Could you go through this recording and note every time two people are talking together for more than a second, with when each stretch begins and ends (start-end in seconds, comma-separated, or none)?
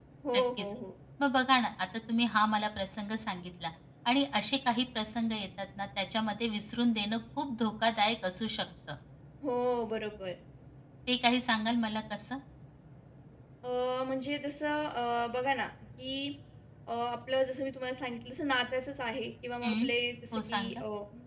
none